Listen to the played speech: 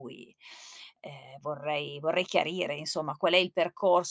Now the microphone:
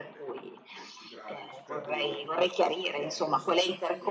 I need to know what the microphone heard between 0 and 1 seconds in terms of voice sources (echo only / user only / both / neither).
both